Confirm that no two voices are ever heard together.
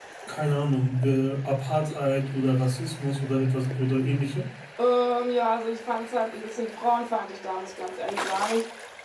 Yes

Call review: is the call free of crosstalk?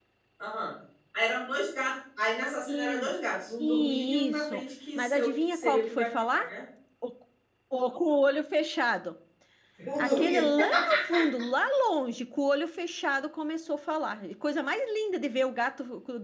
No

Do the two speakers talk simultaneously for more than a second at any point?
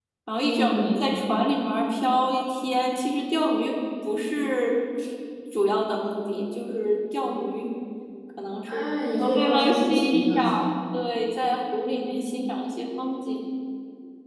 Yes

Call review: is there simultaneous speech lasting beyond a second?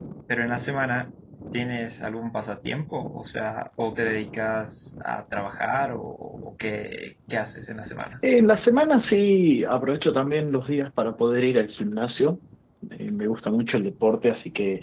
No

